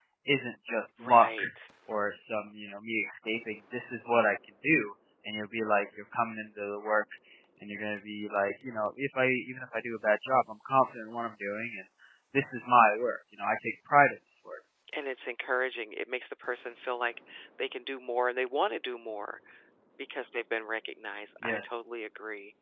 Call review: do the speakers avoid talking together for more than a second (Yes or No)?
Yes